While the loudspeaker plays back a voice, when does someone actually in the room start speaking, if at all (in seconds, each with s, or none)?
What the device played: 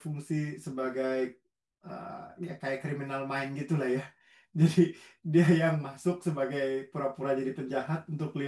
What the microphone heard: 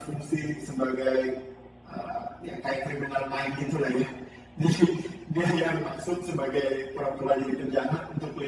none